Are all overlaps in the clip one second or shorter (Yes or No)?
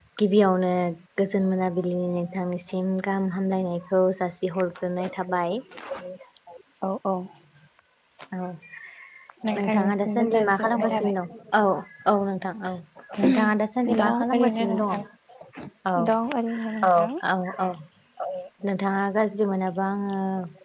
No